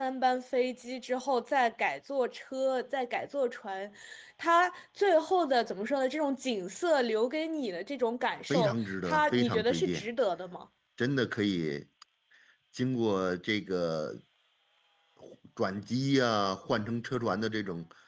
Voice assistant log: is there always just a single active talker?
No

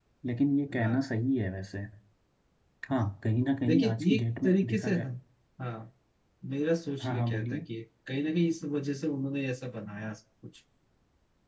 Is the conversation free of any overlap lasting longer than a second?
No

